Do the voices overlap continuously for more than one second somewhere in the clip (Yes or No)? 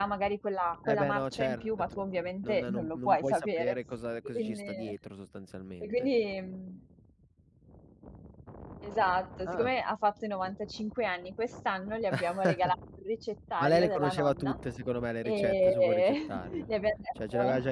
Yes